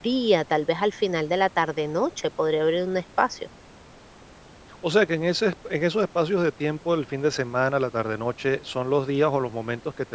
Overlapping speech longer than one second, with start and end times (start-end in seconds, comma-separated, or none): none